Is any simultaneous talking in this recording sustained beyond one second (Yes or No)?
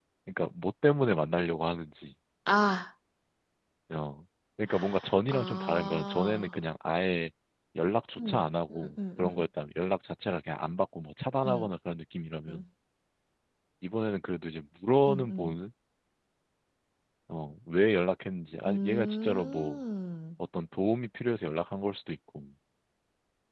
Yes